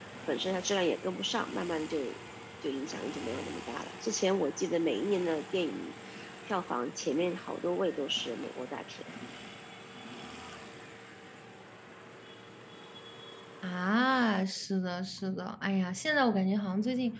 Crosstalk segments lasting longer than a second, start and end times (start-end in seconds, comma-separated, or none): none